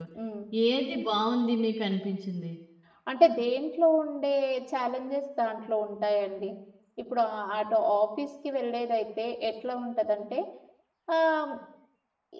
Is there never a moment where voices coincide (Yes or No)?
Yes